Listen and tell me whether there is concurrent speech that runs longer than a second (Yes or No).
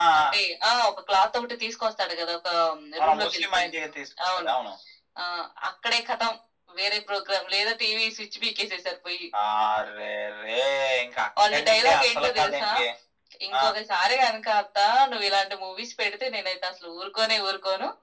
Yes